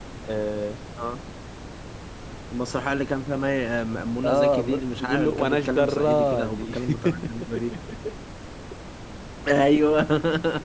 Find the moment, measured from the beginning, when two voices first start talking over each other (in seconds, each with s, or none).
4.2 s